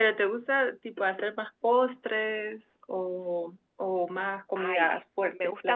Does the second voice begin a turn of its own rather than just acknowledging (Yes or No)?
Yes